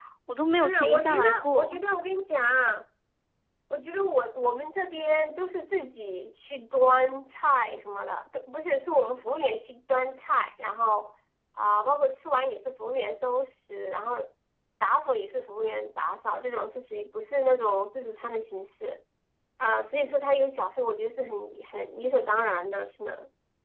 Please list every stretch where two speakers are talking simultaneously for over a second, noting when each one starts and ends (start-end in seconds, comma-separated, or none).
0.6-1.8